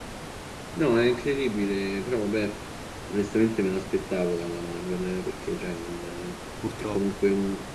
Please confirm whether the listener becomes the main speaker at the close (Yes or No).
No